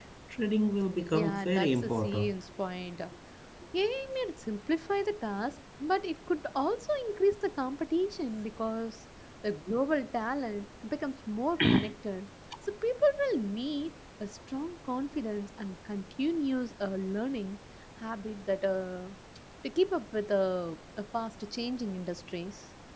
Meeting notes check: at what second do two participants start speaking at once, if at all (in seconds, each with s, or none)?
1.1 s